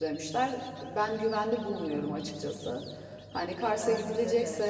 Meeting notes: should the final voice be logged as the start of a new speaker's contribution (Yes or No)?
No